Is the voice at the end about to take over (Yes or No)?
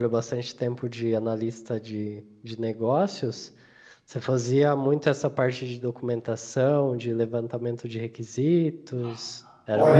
Yes